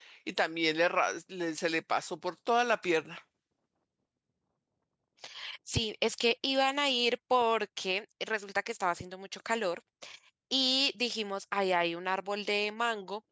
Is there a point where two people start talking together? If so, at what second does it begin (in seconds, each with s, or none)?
none